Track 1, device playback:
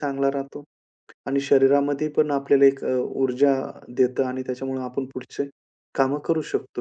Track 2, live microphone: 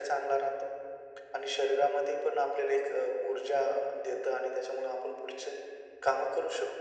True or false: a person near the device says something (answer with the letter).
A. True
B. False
B